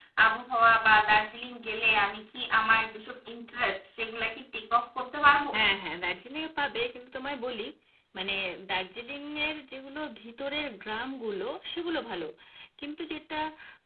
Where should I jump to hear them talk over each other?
none

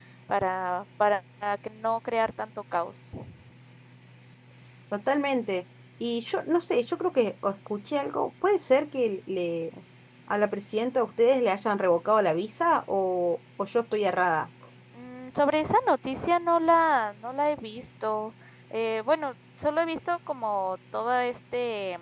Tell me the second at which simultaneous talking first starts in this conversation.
none

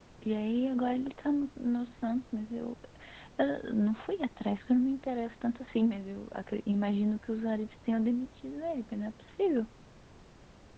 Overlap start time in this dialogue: none

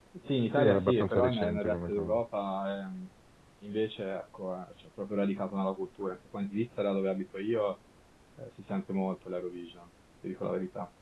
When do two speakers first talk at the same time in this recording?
1 s

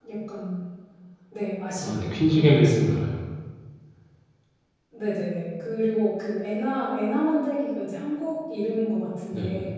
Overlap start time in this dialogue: 2 s

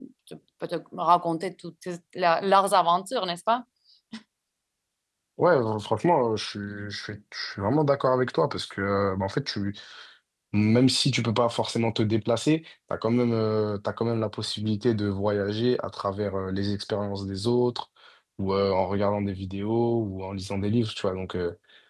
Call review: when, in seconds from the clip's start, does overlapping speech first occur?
none

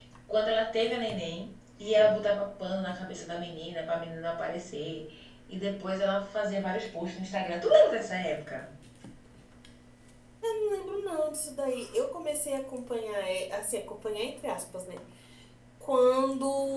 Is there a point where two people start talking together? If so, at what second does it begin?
none

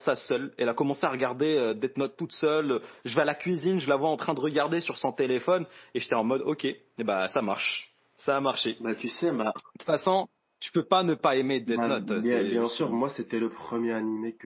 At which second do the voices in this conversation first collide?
12 s

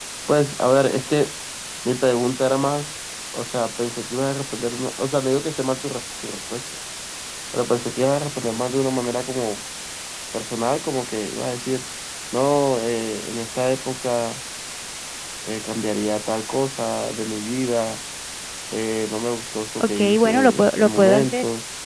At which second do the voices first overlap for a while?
20 s

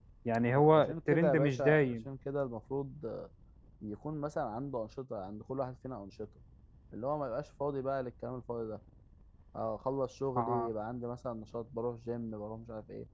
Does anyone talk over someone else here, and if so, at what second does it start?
1 s

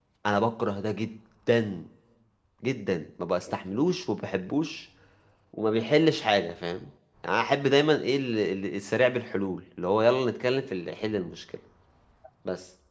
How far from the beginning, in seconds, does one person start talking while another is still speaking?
none

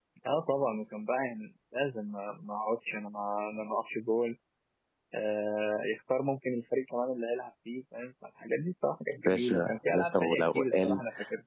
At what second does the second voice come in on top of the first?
9 s

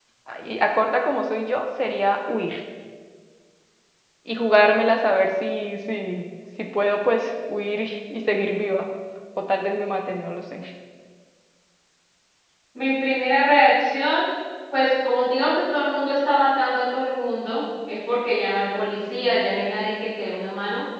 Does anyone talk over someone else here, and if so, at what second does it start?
none

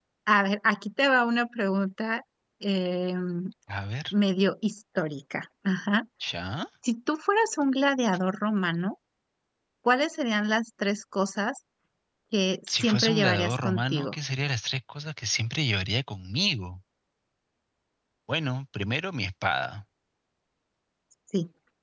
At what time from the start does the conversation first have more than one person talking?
13 s

